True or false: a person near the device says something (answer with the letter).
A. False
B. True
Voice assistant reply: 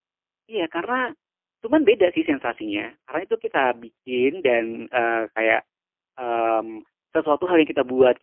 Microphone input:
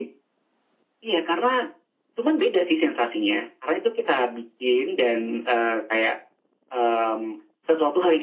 A